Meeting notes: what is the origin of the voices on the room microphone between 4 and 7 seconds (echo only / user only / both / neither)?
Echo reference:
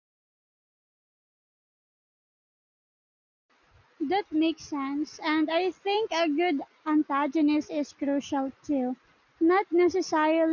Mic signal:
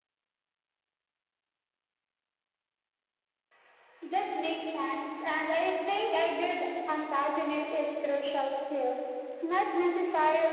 echo only